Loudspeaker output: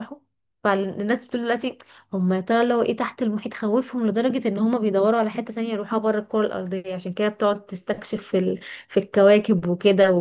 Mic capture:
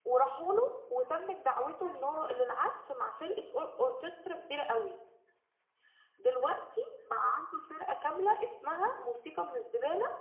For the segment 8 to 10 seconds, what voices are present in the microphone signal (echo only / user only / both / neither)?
user only